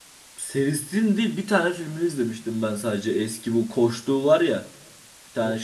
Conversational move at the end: taking over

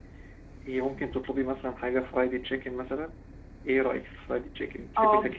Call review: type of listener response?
taking over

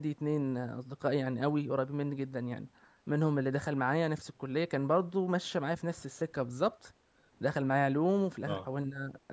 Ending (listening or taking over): listening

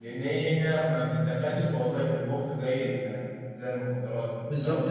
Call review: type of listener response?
taking over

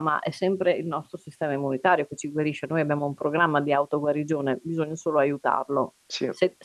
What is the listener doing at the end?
listening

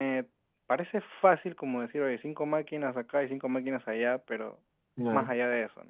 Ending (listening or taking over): listening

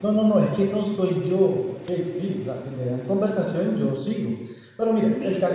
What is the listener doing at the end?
listening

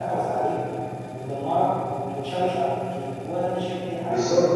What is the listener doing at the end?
taking over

